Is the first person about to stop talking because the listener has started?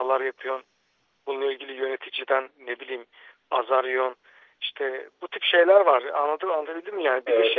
No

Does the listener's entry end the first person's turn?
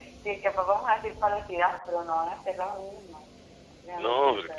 Yes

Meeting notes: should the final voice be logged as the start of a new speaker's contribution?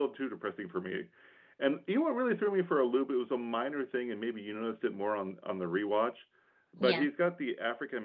No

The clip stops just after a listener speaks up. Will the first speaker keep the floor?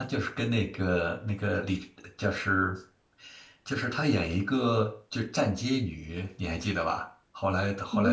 Yes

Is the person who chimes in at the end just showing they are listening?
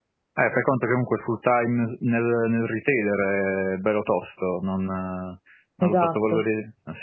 Yes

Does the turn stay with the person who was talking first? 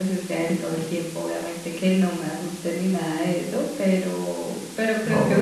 Yes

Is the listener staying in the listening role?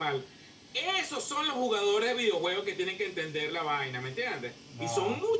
Yes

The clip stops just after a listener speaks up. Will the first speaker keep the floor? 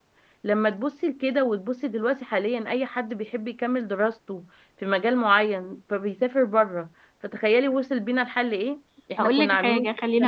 No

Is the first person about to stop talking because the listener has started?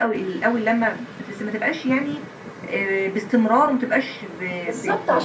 Yes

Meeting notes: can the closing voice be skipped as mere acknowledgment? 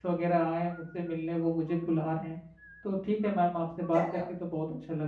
Yes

